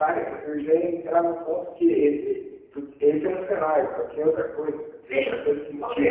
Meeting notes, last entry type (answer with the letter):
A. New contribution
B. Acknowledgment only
A